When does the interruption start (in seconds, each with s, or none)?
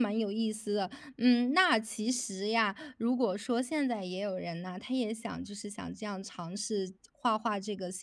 none